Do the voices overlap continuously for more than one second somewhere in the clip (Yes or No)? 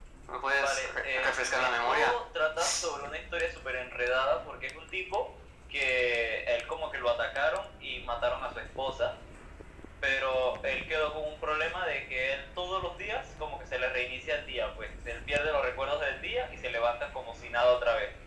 Yes